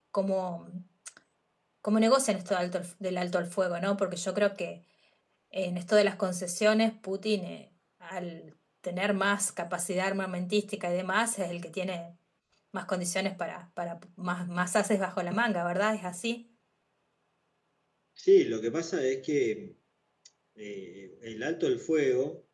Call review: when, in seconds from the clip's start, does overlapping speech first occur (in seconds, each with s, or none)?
none